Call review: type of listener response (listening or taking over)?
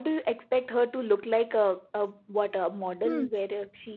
listening